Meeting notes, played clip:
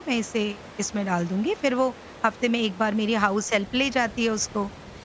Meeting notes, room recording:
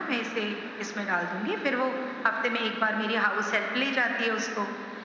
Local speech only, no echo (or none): none